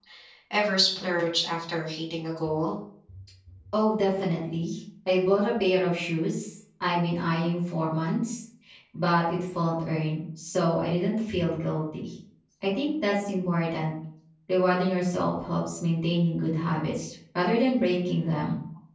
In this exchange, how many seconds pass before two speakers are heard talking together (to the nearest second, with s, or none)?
none